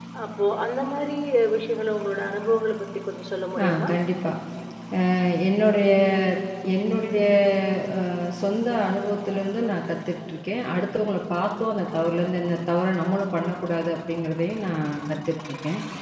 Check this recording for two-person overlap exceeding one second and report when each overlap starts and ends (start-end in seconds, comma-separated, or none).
none